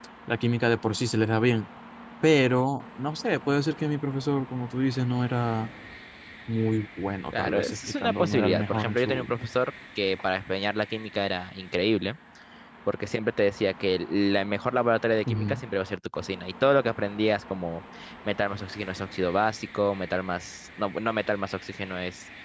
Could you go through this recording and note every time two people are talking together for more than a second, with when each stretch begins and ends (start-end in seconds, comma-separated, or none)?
7.4-9.3